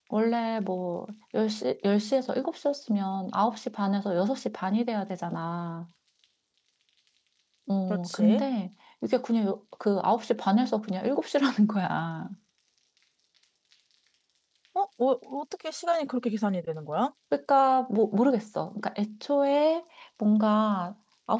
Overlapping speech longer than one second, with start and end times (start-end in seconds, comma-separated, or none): none